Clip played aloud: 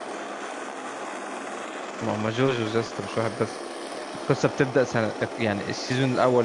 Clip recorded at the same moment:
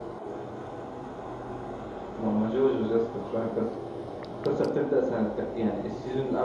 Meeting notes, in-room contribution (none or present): none